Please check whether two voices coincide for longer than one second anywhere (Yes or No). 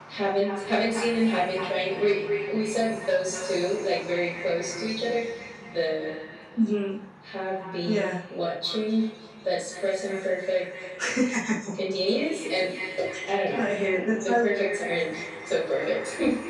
No